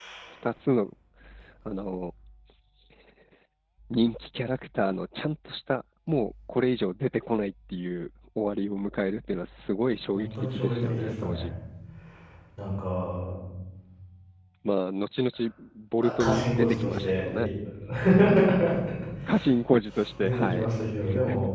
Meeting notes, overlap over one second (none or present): present